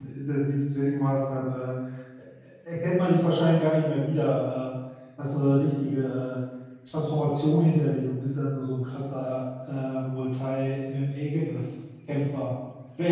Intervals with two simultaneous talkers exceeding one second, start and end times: none

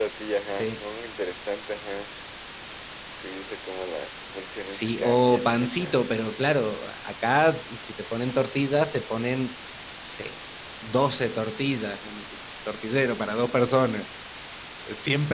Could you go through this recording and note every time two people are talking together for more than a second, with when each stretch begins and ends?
4.7-6.0

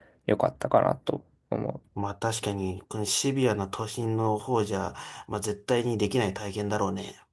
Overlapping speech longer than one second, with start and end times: none

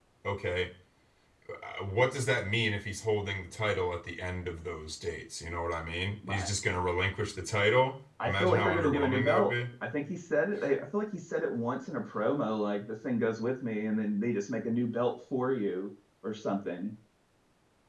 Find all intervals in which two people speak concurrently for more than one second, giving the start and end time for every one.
8.2-9.5

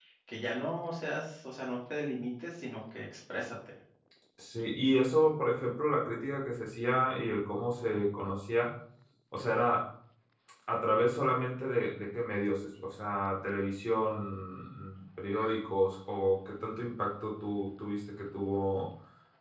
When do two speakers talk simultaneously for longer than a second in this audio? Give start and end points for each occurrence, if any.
none

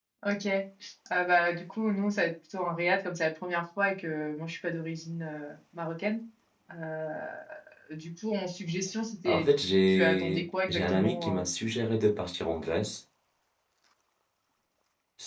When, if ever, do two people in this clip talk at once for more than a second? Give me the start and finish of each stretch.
9.2-11.4

